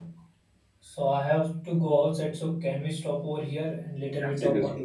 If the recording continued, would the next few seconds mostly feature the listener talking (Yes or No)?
Yes